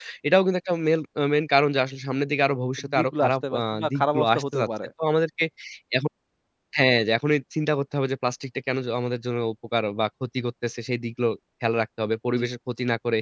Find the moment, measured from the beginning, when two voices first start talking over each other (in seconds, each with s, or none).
2.8 s